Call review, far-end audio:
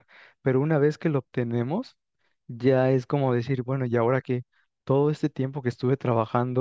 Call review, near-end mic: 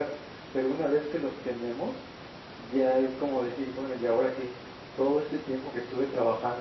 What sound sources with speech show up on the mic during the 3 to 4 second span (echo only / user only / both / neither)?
echo only